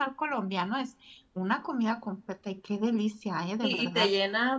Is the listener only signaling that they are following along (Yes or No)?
No